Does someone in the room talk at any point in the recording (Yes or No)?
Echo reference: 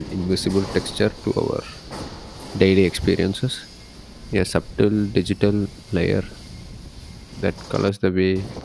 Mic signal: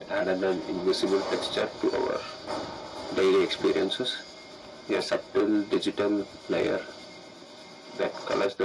No